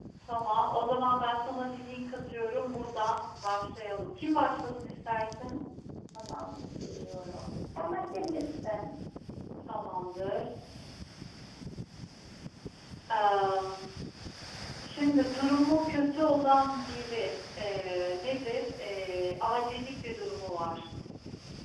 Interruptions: none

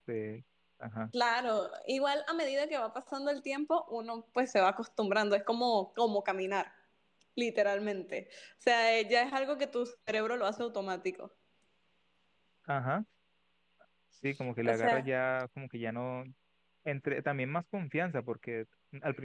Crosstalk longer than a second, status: none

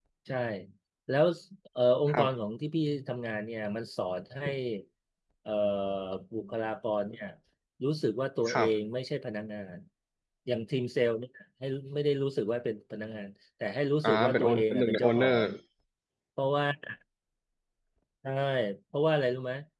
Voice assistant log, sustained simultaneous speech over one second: present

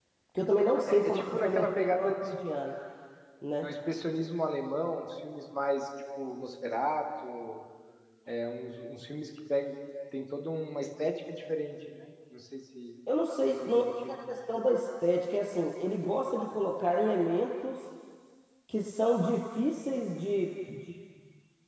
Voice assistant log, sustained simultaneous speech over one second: present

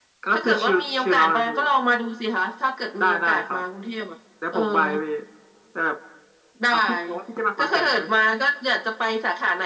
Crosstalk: present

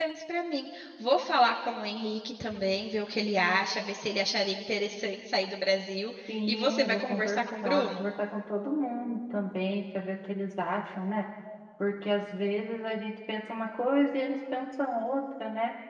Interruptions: present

